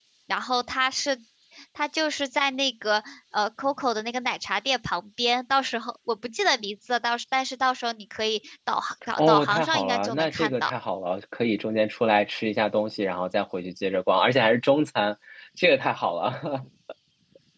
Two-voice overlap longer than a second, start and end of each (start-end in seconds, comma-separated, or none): 9.2-10.7